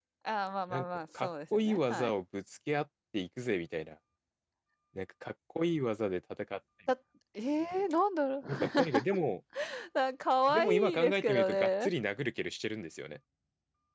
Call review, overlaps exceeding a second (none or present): present